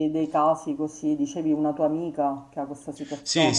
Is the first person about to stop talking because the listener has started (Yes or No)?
Yes